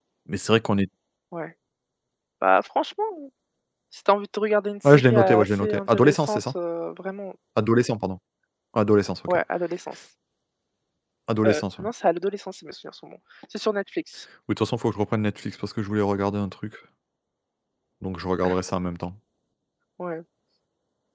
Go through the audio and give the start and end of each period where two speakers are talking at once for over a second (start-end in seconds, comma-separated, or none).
4.8-6.5